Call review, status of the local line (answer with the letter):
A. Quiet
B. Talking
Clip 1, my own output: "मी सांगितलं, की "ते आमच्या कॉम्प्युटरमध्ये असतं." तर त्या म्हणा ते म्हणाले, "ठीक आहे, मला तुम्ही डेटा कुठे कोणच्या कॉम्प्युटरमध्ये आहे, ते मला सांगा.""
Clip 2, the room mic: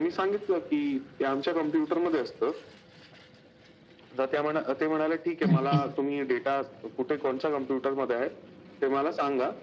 B